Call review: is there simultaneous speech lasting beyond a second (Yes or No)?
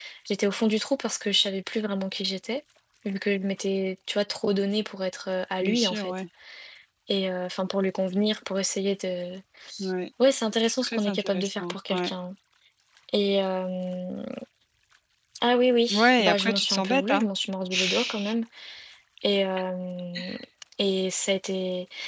Yes